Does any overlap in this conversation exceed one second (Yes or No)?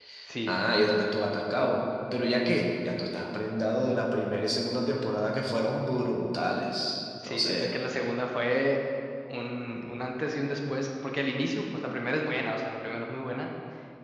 No